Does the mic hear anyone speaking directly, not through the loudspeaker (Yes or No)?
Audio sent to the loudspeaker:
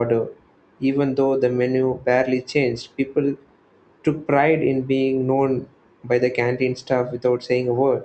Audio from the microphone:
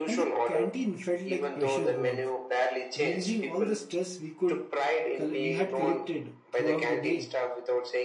Yes